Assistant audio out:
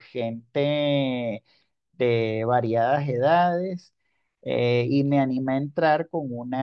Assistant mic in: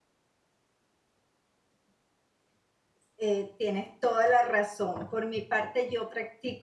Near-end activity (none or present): present